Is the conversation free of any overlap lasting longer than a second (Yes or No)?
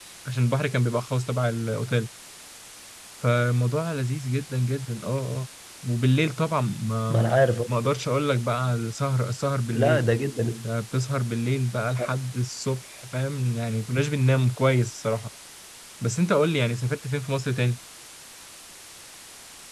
Yes